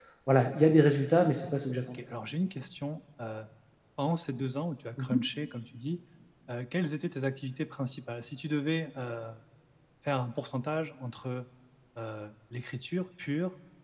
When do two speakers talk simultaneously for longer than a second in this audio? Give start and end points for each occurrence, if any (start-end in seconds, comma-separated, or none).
none